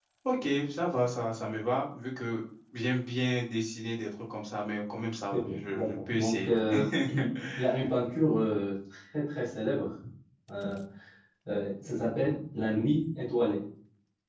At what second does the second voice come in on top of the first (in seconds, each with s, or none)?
5.3 s